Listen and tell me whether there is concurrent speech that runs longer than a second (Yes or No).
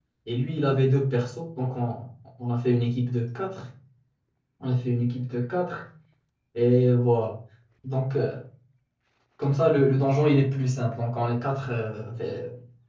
No